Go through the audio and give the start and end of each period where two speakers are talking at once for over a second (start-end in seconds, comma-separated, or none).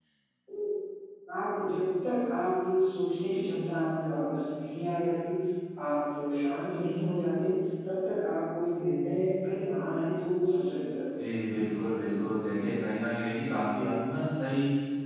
none